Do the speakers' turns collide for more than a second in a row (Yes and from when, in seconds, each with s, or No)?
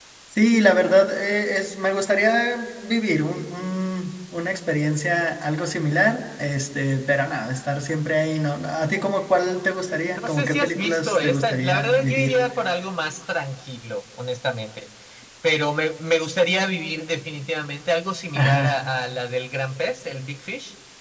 Yes, from 10.1 s